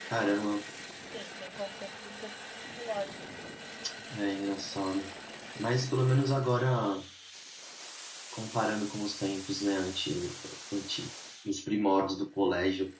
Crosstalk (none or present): none